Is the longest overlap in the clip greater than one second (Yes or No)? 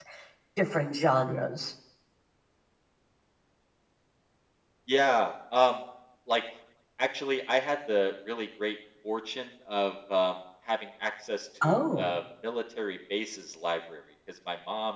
No